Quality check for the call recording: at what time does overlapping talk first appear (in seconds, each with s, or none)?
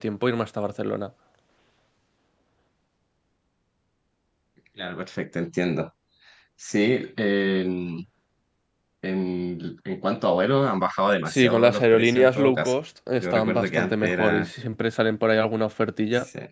11.3 s